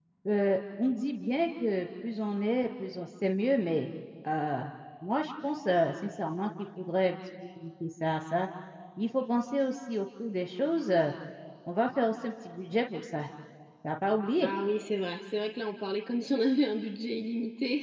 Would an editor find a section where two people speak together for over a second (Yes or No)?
No